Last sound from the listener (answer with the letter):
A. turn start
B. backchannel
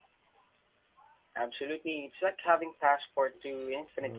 A